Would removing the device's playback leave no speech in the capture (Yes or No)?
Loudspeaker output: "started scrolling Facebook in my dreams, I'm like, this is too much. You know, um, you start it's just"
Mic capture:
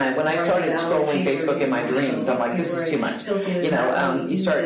No